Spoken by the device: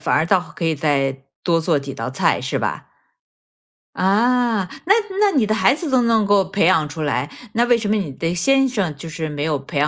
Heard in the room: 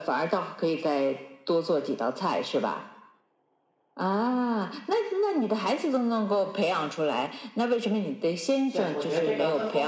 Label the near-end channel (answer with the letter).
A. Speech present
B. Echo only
A